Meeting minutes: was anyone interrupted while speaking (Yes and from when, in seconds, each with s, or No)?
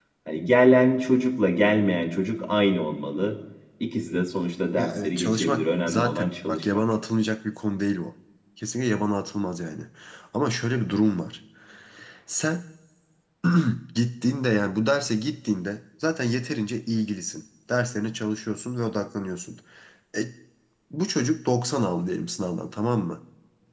Yes, from 4.8 s